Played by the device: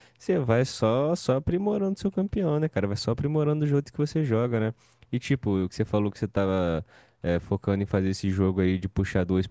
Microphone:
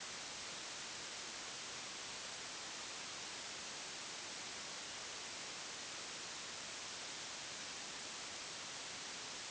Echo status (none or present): none